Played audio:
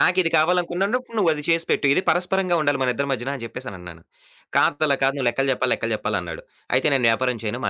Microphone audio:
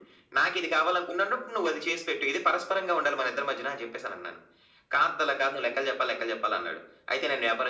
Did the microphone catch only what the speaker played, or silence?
Yes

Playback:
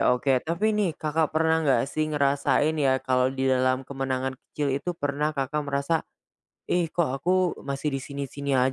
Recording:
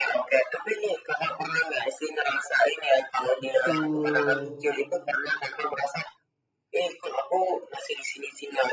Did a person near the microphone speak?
Yes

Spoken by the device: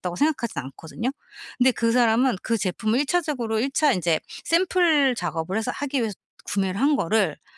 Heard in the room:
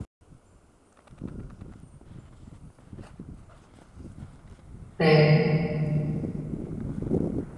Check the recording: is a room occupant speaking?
Yes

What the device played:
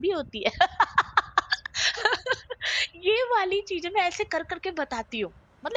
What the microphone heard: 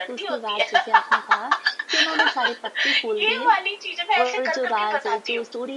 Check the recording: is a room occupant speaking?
Yes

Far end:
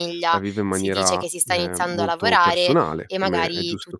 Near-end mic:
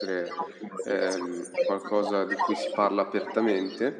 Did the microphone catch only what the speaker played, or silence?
No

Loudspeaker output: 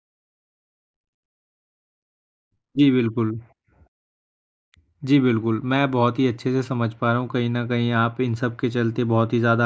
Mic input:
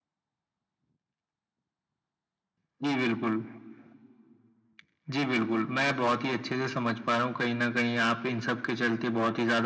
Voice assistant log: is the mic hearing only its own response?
Yes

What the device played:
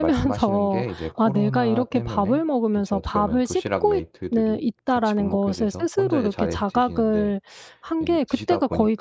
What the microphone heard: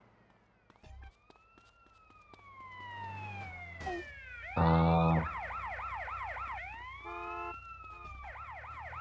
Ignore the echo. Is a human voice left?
Yes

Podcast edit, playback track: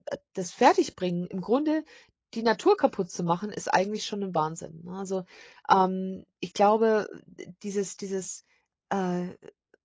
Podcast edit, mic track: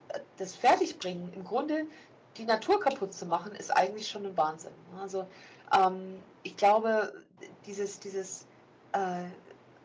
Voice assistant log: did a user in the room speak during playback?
No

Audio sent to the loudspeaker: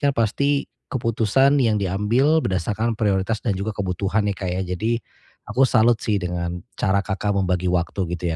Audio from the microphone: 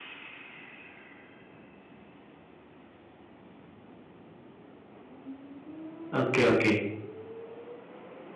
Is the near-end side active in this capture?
Yes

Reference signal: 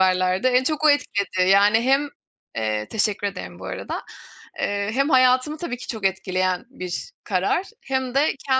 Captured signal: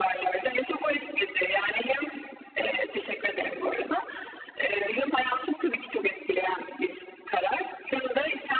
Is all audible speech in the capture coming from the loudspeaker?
Yes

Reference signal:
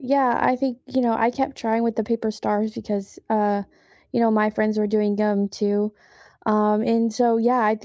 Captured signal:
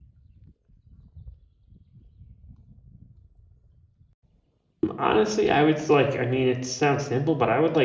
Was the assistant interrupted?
Yes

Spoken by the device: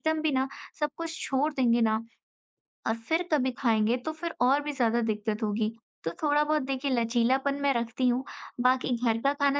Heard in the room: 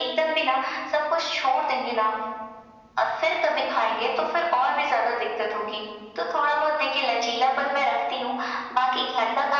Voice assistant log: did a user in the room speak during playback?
No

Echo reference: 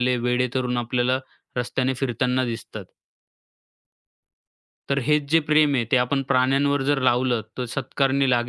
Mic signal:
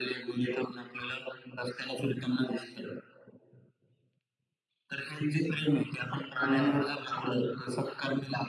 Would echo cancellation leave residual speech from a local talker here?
Yes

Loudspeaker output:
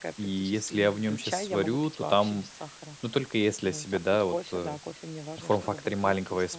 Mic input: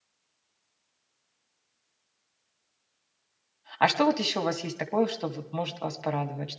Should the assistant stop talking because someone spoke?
Yes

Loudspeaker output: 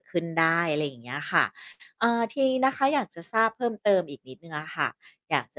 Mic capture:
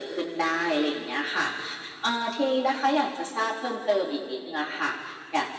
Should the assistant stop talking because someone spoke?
No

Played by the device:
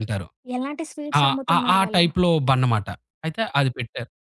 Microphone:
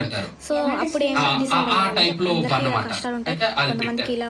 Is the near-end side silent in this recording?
No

